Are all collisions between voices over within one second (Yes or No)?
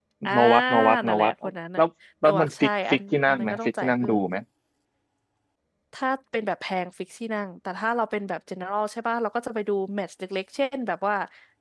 No